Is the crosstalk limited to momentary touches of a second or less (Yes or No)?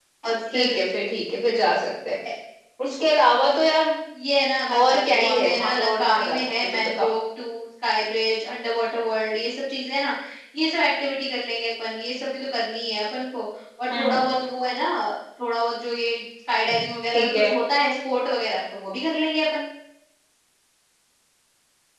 No